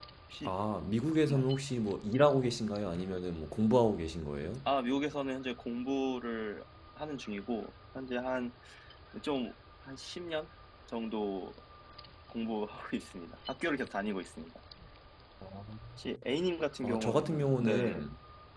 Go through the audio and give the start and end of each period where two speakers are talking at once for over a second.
16.8-18.1

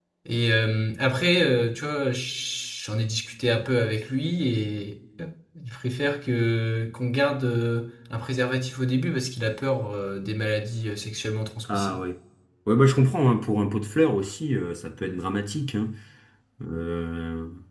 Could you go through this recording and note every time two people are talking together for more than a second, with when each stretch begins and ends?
none

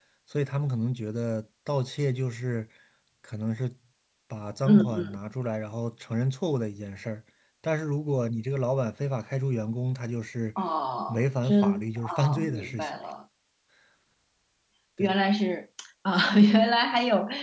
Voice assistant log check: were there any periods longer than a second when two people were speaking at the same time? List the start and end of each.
11.1-13.0

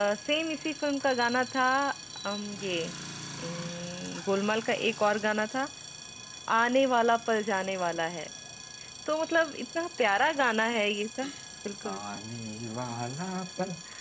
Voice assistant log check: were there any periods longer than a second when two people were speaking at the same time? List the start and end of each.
none

